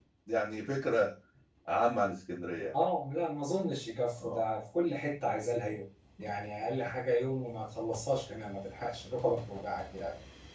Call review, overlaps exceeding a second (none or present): none